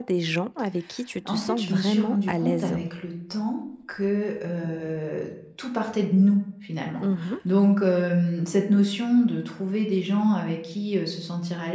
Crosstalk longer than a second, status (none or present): present